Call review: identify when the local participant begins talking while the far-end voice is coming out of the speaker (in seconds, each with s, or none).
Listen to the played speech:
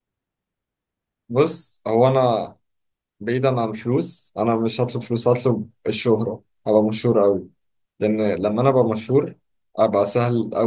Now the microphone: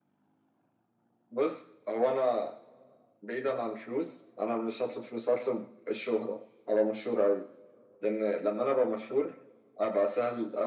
none